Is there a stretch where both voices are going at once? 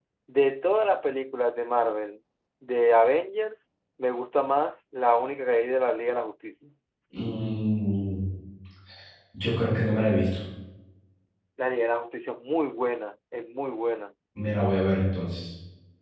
No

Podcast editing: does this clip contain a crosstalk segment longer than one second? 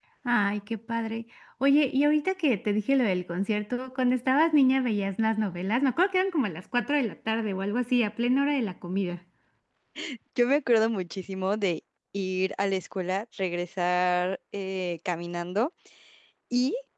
No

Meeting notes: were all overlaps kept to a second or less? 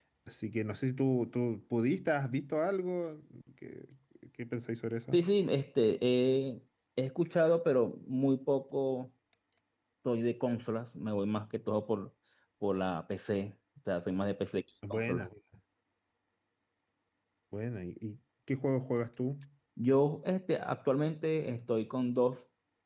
Yes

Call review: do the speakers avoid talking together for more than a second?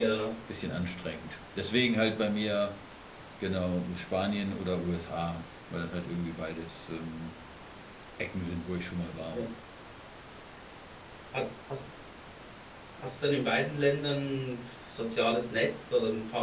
Yes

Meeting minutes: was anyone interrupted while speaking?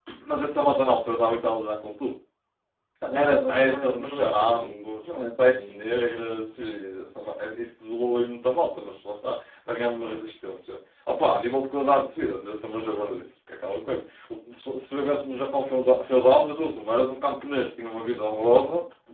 Yes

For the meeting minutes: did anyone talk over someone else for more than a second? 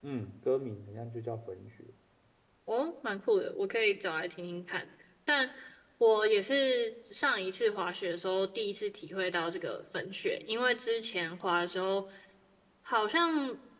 No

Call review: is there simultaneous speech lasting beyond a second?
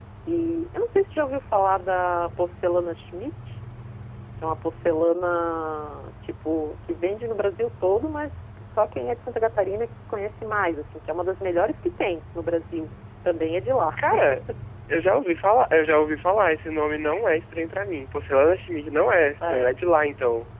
No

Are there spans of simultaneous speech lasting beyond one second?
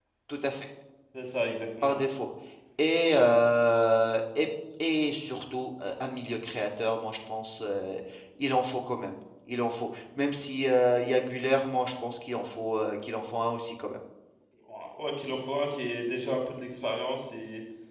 No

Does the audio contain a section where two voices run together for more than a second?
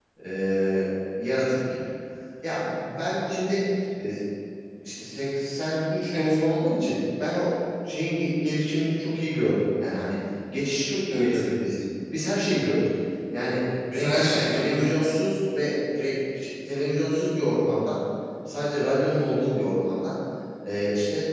Yes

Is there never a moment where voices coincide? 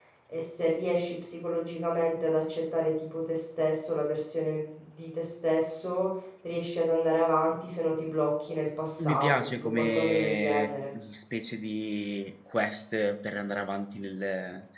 No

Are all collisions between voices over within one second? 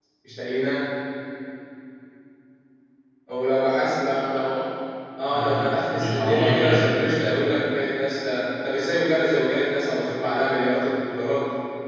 No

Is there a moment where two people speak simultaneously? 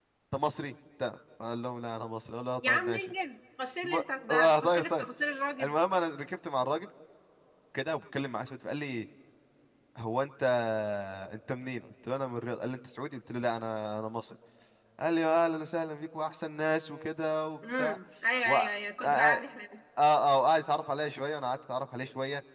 Yes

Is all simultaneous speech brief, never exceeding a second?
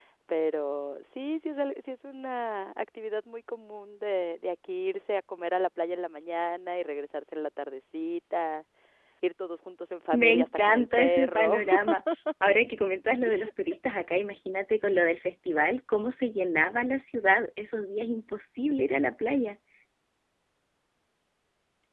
No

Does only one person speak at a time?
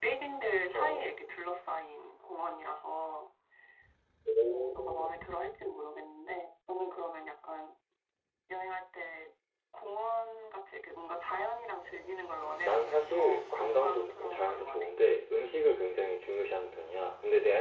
No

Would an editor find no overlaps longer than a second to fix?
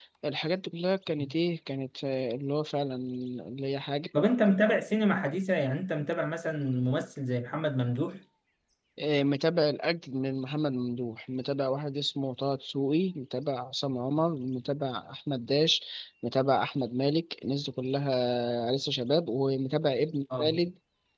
Yes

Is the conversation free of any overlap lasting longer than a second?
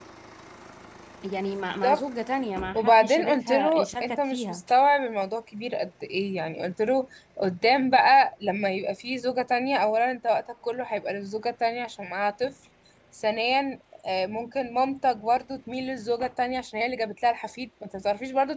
No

